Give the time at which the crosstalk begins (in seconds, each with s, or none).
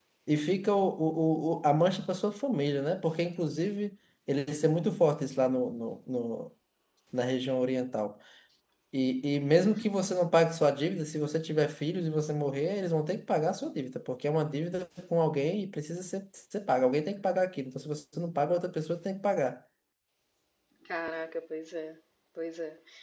none